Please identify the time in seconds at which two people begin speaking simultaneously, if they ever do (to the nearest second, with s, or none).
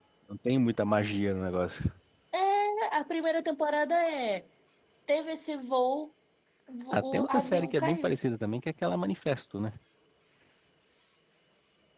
7 s